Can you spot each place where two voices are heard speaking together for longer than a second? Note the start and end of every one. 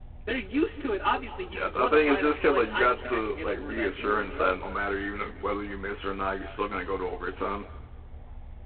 1.5-4.5

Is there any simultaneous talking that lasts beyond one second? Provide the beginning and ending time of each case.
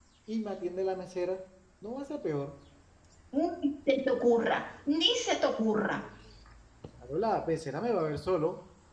none

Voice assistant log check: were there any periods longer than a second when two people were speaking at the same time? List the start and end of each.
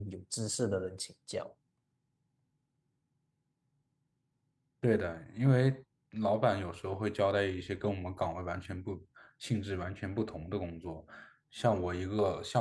none

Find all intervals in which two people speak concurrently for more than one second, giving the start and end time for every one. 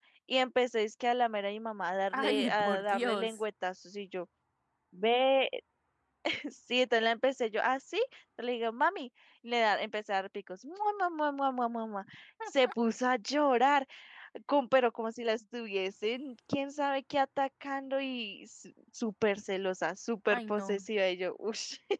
2.1-3.4

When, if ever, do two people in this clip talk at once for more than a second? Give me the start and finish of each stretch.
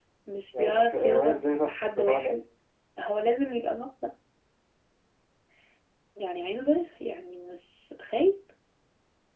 0.6-2.4

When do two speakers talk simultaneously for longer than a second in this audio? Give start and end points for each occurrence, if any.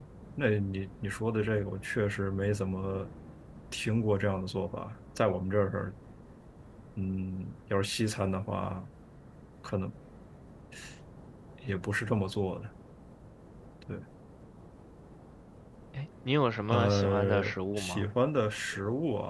16.7-18.1

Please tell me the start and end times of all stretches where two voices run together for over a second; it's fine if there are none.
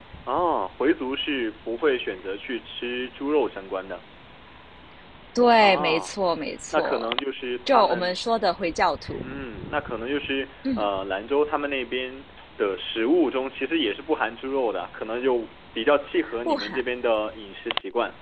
none

